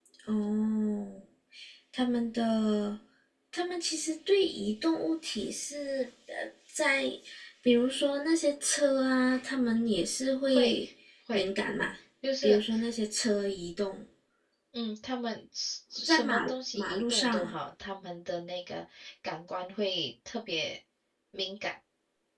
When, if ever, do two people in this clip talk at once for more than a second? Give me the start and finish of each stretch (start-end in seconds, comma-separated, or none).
16.0-17.5